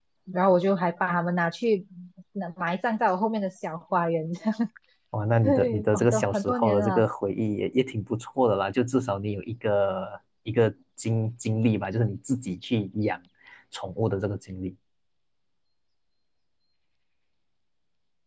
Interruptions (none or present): present